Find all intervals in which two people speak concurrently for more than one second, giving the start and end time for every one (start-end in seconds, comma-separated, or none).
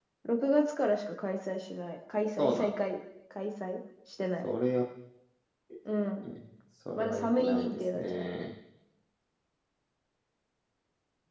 7.0-8.2